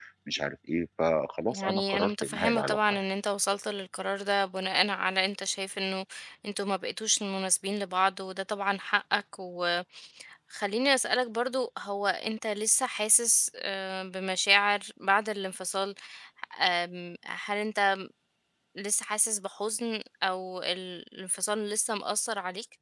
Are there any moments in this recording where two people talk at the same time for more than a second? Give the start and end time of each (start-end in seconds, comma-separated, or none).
1.5-3.0